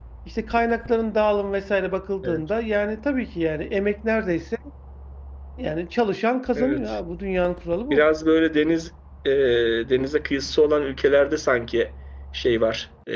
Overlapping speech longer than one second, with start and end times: none

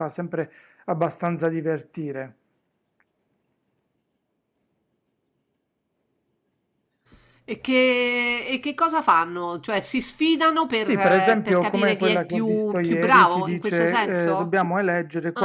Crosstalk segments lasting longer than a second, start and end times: 10.9-14.5

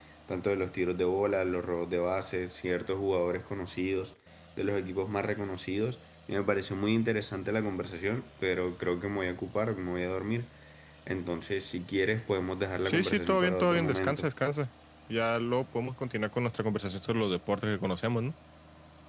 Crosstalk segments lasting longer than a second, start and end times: 12.8-14.3

